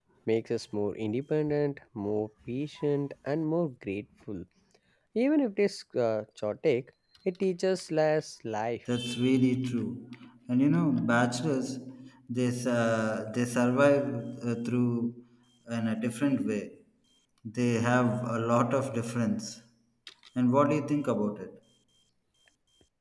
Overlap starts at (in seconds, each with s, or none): none